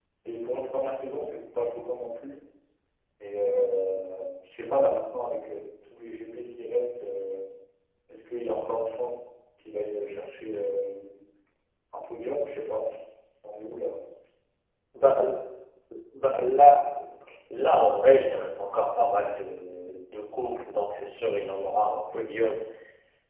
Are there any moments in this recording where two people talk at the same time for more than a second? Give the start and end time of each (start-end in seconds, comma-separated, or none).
none